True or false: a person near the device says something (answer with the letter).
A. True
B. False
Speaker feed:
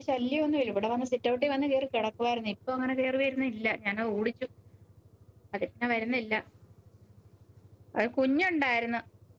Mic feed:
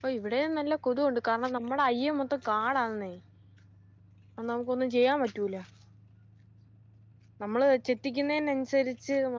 A